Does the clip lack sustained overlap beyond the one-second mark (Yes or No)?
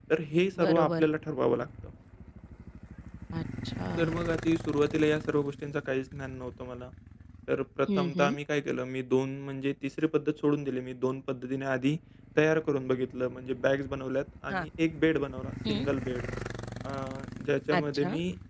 Yes